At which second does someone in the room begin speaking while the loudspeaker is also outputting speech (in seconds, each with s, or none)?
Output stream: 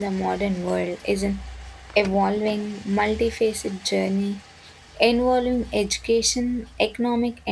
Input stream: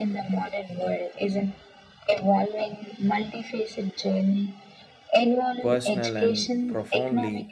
5.6 s